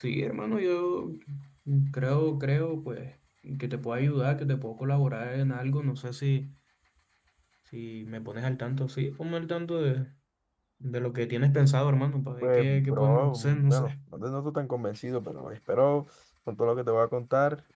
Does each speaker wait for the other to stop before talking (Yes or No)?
No